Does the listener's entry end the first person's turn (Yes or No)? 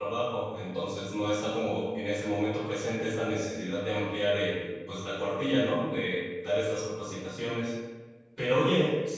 No